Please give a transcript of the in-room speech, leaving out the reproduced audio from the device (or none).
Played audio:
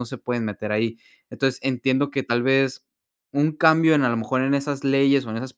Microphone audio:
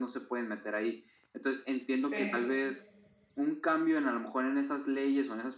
Sí.